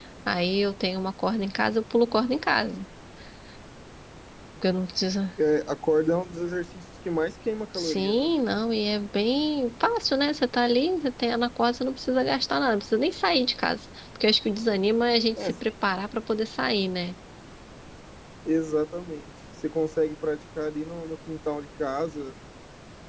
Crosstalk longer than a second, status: none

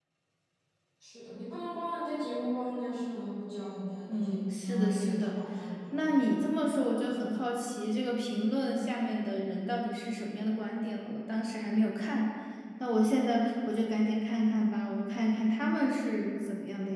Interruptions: present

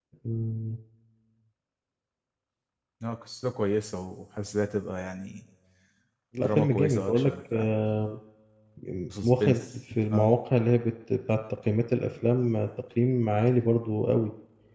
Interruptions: present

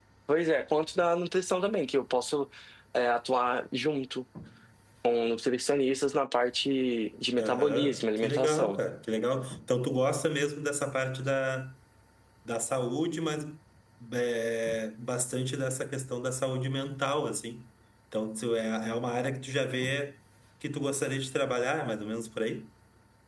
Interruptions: present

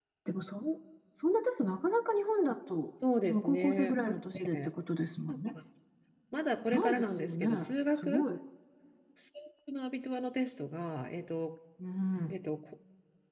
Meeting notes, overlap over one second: present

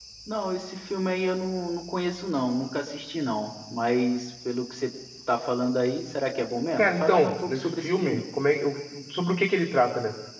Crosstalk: present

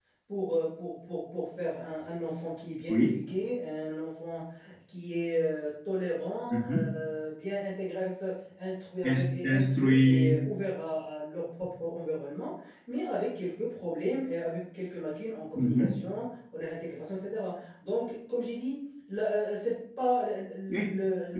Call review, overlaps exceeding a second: present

